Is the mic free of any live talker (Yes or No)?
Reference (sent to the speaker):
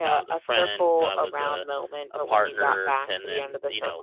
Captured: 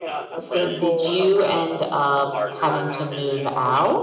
No